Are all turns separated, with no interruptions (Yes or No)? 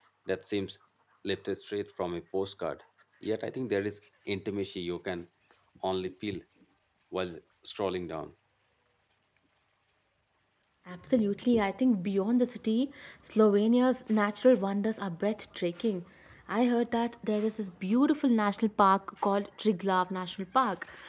Yes